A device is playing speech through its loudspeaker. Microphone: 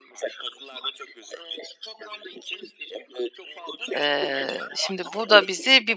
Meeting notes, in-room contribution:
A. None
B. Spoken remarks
B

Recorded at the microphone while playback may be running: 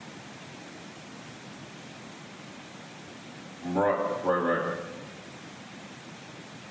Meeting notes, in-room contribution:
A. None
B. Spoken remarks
B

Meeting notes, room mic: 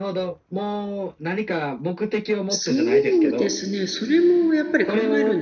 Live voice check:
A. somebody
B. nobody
A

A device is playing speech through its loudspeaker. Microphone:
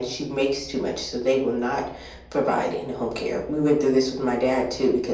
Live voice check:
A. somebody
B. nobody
B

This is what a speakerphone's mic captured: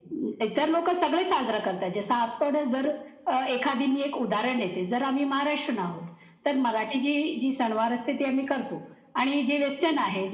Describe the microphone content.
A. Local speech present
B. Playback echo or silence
B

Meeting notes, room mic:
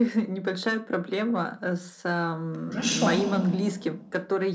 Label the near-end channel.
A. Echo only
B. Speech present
B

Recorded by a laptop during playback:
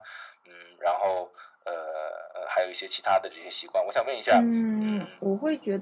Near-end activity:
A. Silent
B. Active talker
B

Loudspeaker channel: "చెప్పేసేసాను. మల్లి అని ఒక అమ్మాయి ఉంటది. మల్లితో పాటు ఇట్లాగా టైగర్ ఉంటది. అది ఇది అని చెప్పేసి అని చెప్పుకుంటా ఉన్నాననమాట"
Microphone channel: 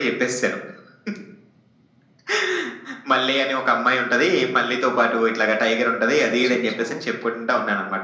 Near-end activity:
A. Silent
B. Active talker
B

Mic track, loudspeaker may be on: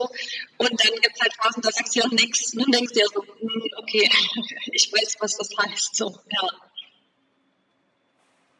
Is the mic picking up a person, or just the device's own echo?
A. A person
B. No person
B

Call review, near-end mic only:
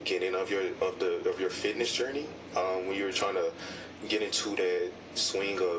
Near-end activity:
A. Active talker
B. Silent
B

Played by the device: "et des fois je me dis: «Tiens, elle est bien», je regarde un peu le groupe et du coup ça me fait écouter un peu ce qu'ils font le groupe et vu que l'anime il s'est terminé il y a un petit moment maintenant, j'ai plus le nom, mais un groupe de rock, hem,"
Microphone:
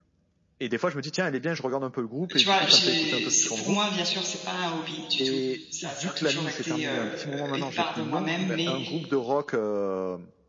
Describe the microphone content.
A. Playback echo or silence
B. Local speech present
B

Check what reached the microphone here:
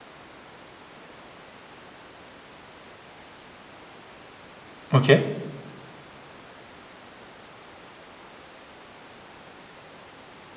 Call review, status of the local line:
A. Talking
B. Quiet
A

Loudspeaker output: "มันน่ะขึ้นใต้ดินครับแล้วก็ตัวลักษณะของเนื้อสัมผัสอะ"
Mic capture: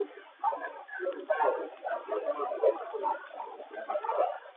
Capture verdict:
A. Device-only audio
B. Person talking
A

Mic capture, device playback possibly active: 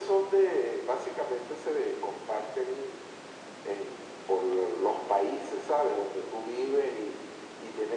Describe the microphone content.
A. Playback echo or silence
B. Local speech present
A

